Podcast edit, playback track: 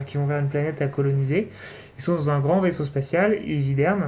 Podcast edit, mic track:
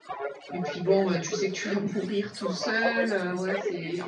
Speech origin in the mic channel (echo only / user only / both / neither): both